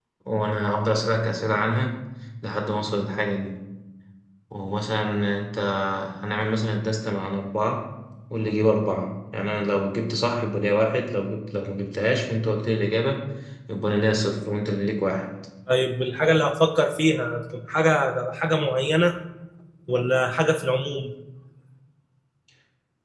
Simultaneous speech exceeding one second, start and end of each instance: none

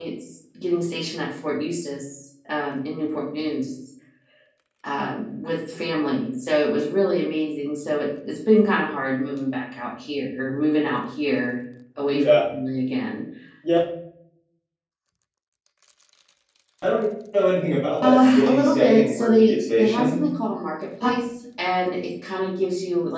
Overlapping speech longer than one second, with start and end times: 18.0-20.2

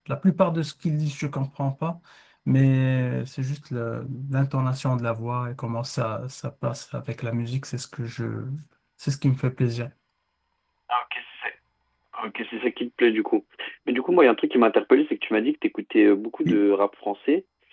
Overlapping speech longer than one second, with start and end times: none

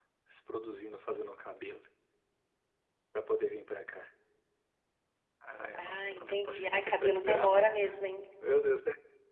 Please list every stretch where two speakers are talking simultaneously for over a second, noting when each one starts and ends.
5.8-7.7

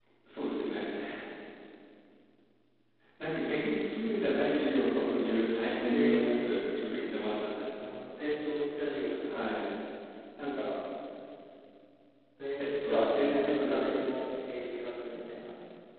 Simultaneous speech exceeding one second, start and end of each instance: 12.8-14.2

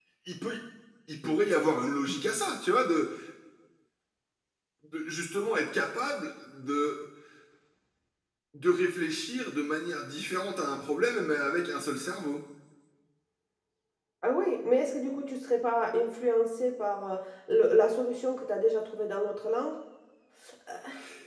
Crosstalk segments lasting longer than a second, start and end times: none

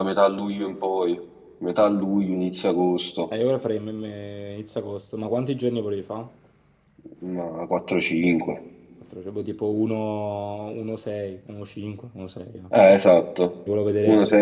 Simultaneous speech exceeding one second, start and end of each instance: none

